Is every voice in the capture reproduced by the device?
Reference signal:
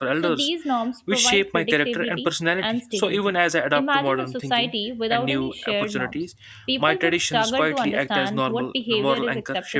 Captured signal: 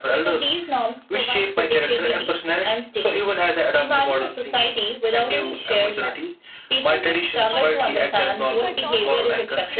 No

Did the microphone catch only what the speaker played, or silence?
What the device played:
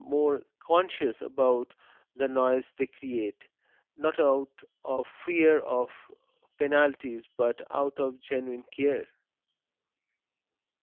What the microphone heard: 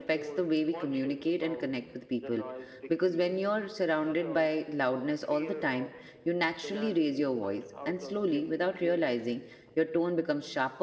No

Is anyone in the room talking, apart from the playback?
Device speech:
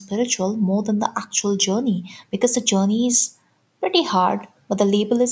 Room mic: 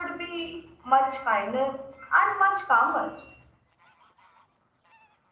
Yes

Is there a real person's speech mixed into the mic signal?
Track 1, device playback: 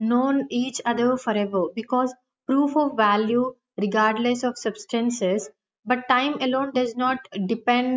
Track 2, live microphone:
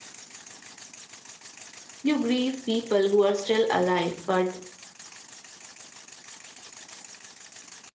Yes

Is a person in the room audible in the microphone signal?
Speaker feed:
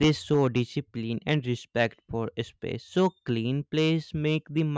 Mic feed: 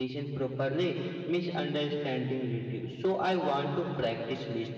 Yes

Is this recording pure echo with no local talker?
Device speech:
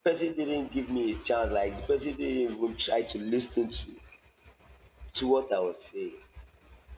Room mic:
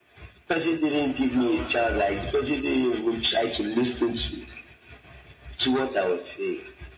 No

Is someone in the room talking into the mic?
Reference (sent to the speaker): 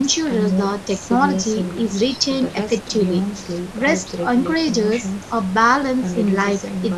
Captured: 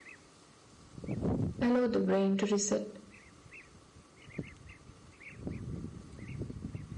Yes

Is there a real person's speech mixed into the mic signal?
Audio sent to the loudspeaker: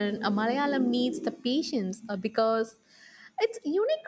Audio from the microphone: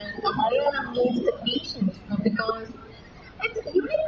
No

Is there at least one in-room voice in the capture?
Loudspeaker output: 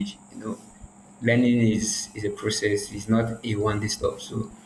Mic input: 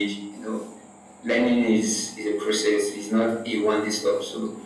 No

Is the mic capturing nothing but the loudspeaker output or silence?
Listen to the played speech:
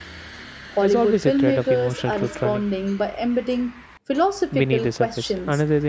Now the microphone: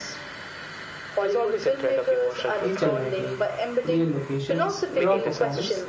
No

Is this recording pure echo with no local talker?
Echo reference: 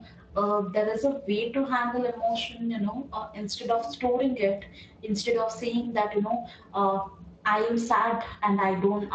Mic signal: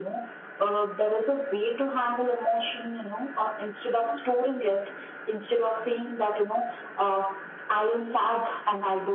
Yes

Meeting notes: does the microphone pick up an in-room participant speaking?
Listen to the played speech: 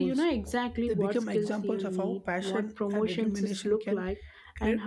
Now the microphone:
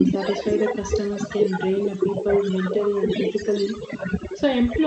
Yes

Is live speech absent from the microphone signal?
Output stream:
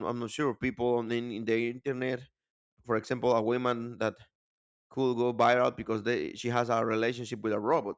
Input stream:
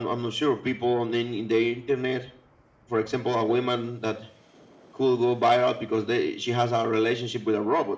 Yes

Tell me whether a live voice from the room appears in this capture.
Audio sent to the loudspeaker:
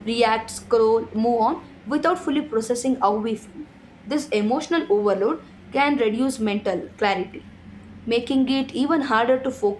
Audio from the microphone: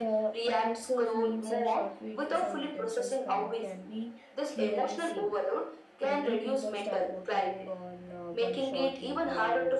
Yes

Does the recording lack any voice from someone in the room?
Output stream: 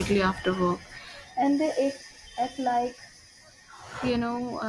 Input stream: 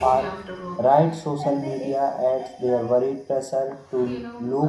No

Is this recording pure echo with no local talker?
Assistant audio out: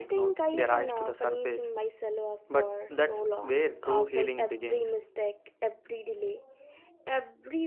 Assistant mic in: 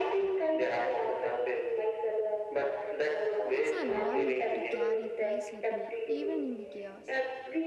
No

